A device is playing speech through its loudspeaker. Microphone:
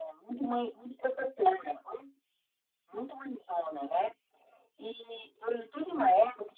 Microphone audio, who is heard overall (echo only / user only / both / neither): echo only